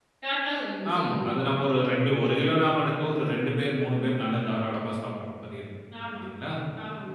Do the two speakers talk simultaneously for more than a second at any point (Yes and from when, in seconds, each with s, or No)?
No